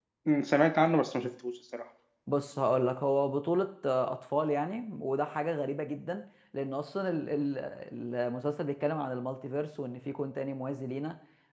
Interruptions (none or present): none